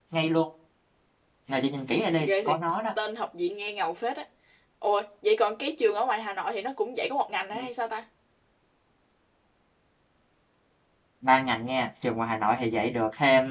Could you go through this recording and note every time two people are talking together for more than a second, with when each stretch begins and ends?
none

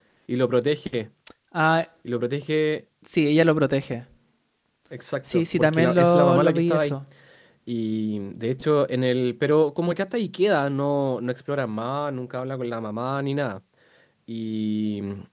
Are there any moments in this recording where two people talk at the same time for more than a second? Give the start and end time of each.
5.3-7.0

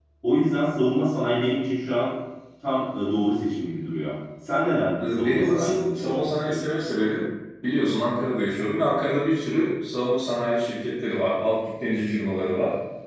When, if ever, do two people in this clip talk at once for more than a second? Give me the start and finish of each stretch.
5.0-6.6

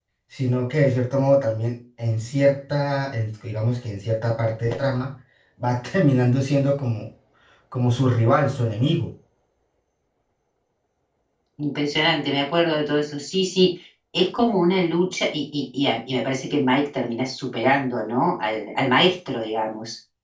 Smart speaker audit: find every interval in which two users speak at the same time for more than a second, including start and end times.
none

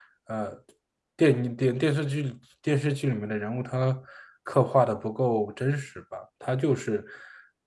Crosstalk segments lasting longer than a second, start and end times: none

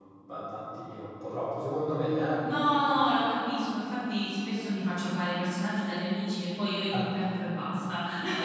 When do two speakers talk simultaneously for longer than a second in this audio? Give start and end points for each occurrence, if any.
none

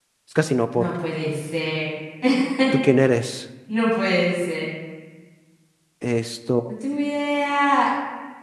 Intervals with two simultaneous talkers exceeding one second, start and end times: none

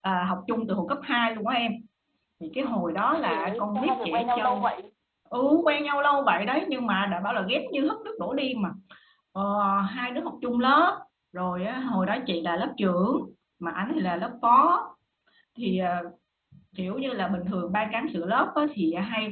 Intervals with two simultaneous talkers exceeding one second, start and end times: 3.2-4.7

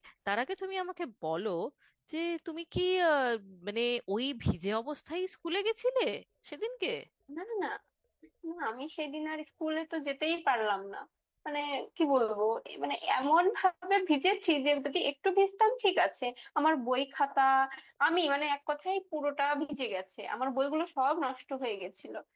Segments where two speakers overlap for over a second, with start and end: none

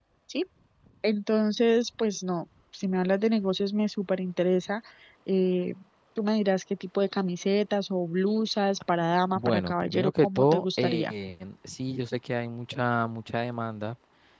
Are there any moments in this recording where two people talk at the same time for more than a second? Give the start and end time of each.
9.4-11.1

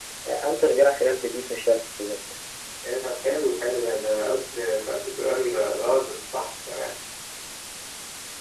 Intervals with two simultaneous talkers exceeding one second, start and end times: none

